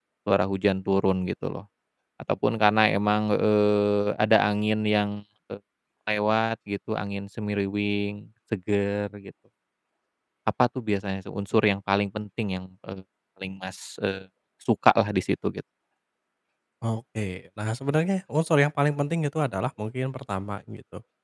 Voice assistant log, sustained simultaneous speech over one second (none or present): none